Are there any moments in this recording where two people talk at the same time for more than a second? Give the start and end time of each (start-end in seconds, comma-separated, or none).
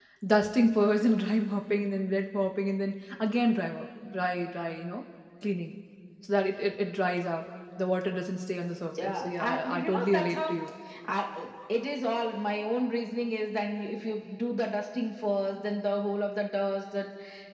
9.0-10.5